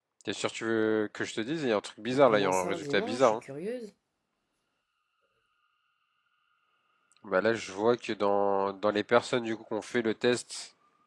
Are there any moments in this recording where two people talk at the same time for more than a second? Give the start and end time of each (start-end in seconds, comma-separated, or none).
2.1-3.4